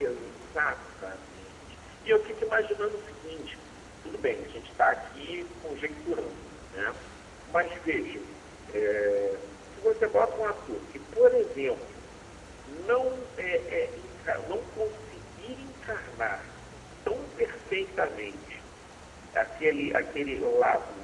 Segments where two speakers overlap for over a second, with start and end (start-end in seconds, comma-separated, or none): none